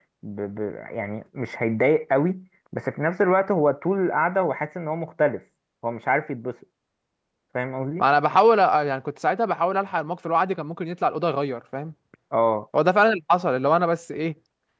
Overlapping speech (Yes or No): No